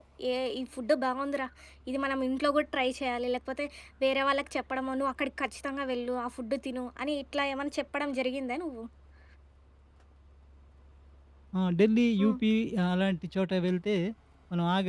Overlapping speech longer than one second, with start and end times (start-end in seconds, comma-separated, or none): none